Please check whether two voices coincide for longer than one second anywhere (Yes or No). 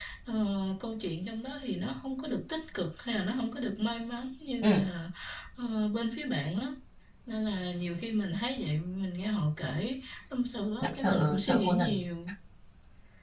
Yes